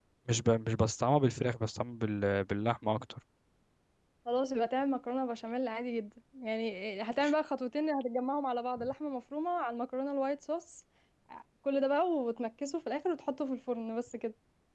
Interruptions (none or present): none